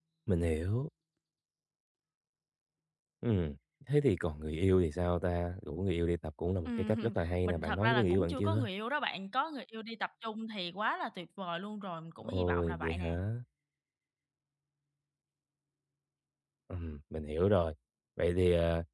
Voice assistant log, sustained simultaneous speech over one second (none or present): present